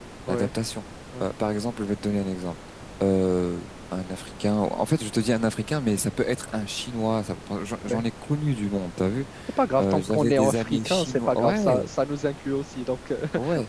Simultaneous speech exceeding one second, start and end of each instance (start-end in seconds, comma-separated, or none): 9.8-11.6